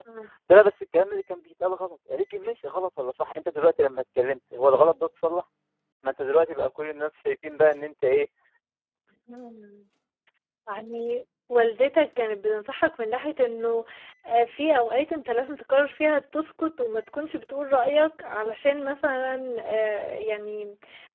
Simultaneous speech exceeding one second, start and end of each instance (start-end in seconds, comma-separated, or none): none